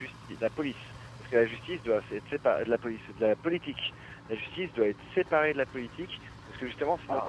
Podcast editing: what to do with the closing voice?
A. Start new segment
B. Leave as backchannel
B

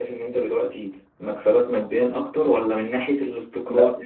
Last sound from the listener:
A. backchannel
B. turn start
A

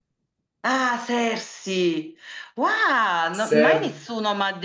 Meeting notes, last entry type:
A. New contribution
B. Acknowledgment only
B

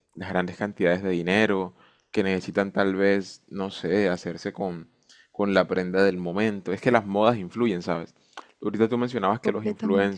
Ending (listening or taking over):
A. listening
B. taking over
A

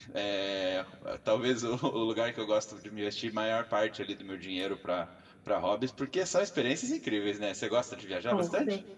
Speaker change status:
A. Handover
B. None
A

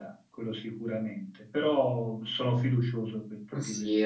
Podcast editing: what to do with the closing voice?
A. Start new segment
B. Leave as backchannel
A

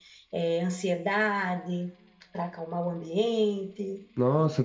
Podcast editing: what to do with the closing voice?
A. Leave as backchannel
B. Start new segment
B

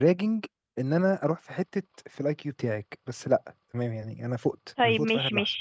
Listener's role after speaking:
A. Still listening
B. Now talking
B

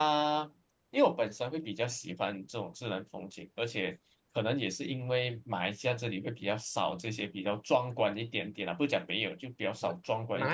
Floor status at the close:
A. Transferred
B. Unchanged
A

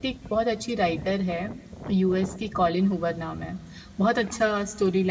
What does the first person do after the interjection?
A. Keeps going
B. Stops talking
A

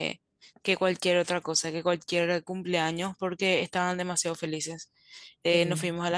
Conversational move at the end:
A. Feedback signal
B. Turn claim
A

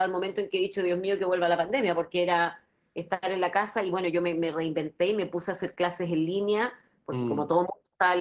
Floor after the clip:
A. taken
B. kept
B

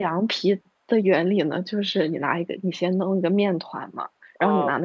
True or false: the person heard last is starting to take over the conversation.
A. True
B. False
B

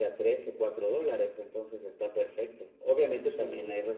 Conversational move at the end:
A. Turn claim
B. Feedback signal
B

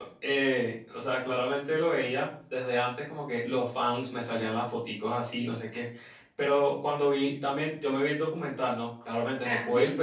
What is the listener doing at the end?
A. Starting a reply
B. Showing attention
B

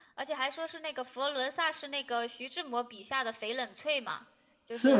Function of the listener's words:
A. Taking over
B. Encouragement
A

